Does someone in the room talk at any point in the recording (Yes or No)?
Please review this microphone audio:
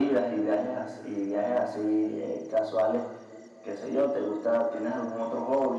No